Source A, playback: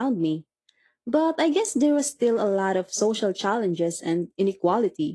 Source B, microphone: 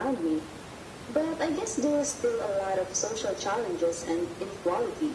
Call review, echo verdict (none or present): present